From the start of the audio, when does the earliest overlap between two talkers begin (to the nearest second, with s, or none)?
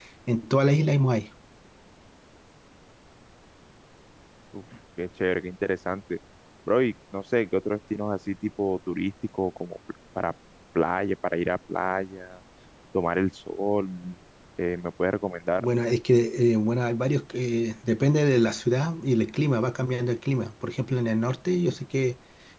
none